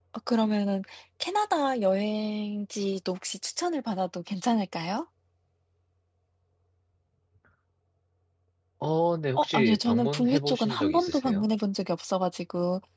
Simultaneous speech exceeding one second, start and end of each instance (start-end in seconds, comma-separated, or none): 9.4-11.4